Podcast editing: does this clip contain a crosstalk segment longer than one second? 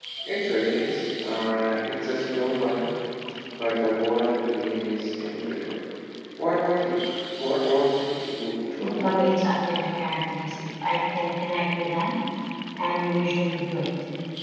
No

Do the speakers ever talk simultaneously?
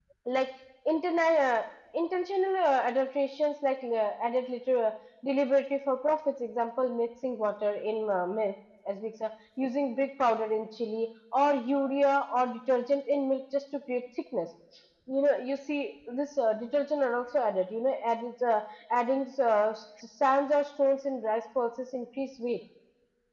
No

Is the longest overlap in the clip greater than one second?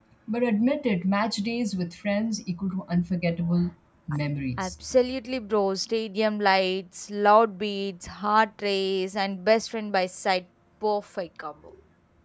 No

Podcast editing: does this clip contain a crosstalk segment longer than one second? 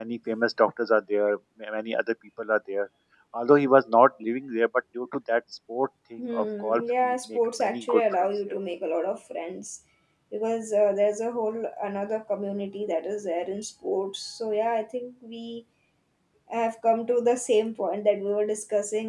Yes, from 6.2 s

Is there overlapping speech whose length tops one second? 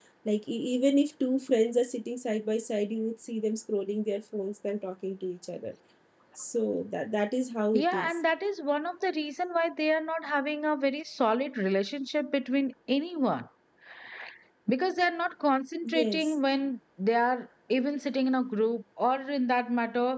No

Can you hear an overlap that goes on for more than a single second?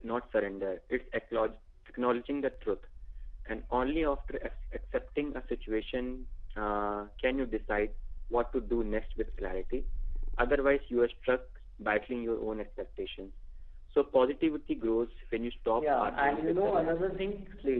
Yes, from 15.8 s

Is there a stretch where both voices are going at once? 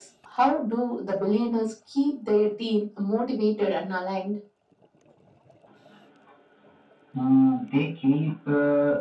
No

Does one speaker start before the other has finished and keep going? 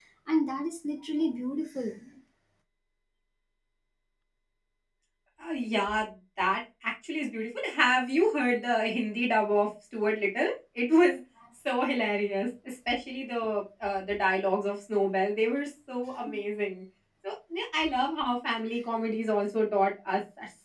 No

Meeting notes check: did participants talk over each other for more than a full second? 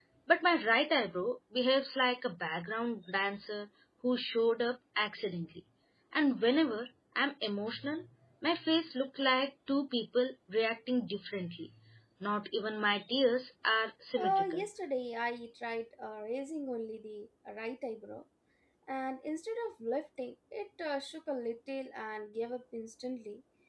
No

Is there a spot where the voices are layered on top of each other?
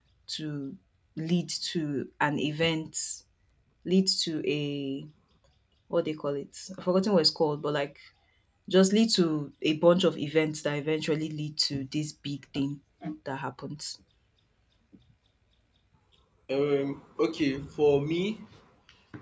No

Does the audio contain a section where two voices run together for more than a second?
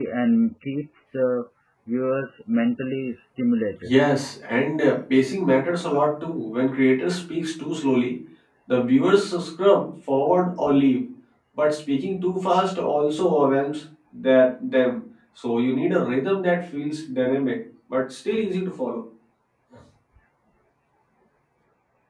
No

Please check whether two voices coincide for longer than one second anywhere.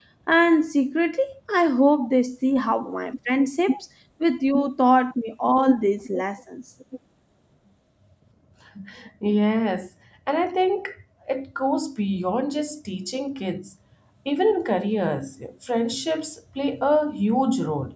No

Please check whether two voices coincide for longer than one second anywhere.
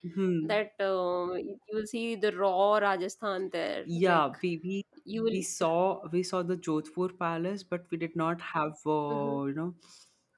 No

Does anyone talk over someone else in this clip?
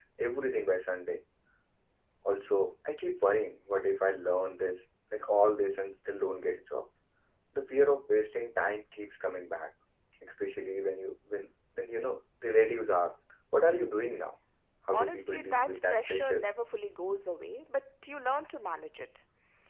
Yes, from 14.9 s

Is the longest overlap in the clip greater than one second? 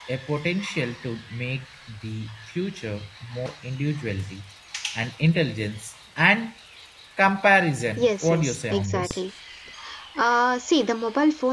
Yes, from 8.0 s

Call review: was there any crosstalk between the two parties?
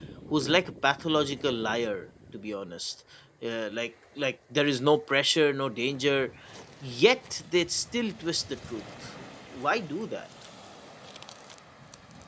No

